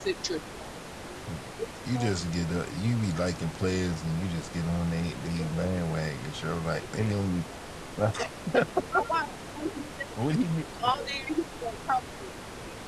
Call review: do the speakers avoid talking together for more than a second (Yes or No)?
Yes